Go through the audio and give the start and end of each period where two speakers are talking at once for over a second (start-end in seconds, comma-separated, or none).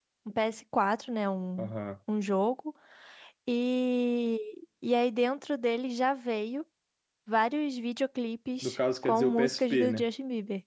8.6-10.1